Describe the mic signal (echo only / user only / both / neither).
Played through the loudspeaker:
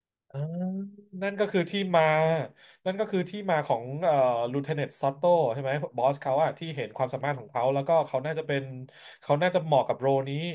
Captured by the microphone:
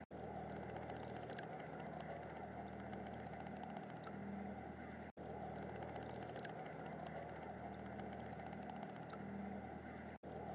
neither